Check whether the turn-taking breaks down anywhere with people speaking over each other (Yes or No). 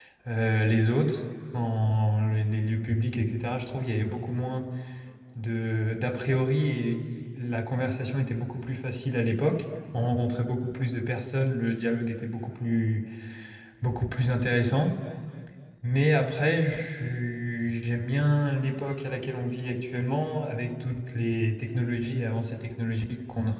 No